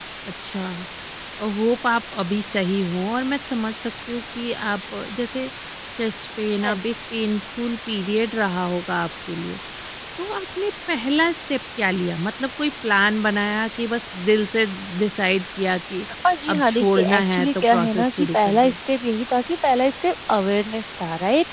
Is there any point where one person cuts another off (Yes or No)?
Yes